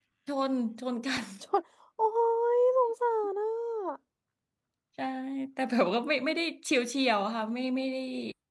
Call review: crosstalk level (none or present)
none